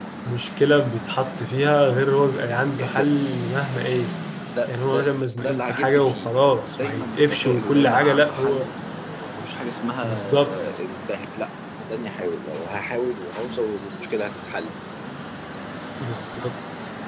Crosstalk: present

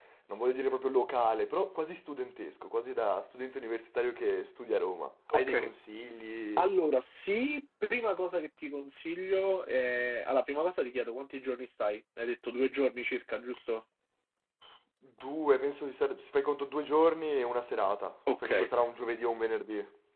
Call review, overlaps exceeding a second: none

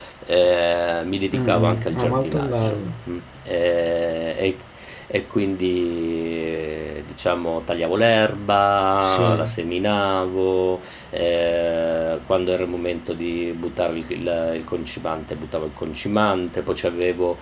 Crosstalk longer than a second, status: present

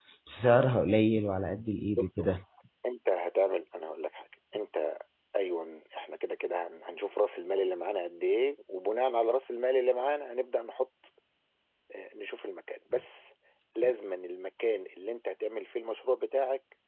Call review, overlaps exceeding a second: none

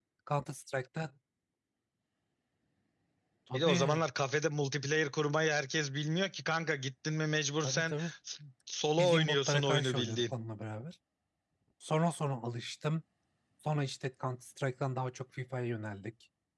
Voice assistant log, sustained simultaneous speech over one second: present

